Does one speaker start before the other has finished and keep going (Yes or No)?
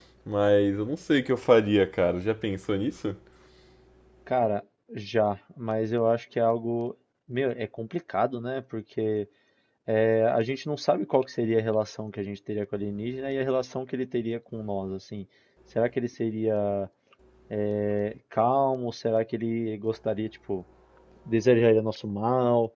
No